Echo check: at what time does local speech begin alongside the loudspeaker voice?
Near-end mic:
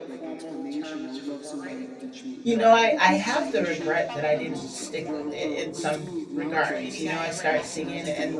2.4 s

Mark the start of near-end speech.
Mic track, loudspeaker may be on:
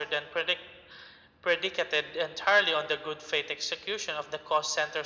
none

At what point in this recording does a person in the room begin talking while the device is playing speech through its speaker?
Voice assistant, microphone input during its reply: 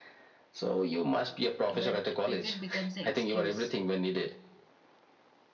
1.7 s

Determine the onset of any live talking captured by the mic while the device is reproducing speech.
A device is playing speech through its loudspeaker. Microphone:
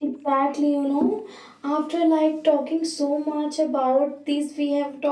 none

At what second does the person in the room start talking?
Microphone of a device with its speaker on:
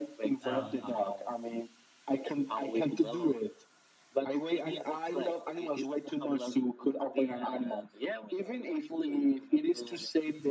0.4 s

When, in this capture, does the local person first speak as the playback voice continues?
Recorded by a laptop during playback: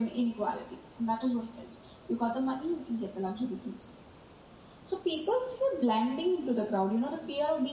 none

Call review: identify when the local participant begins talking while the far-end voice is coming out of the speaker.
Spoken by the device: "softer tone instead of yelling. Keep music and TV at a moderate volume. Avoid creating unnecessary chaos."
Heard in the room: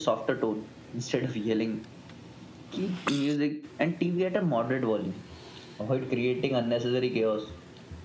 none

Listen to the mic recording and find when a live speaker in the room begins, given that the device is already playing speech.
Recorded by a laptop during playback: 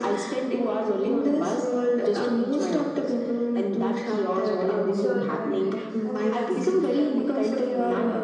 4.9 s

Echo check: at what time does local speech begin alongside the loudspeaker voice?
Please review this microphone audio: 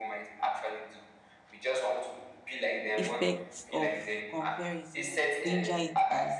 3.0 s

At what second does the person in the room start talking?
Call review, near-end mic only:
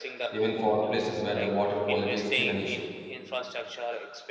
0.3 s

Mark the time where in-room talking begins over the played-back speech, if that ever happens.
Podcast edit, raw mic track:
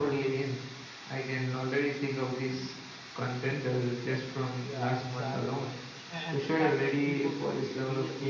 4.0 s

